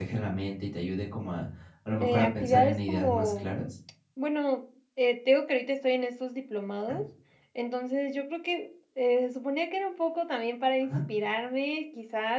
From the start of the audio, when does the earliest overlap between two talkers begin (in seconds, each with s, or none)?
2.0 s